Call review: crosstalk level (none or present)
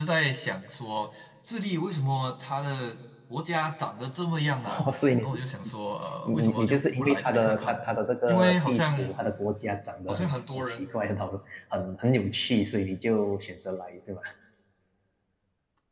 present